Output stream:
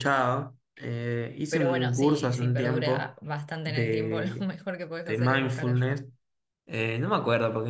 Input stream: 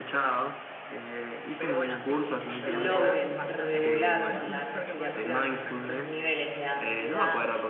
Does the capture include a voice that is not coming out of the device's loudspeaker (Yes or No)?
Yes